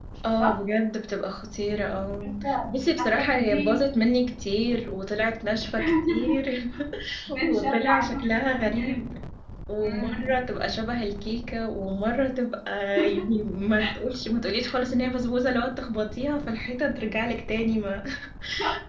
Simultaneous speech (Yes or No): Yes